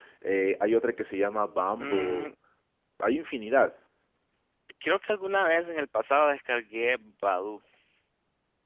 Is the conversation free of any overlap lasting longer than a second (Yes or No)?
Yes